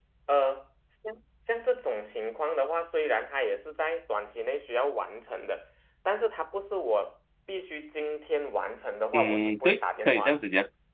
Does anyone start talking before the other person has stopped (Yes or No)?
Yes